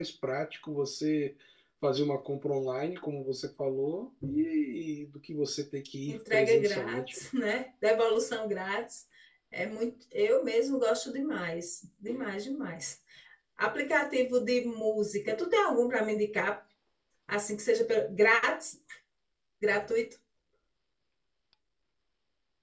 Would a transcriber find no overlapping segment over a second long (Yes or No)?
No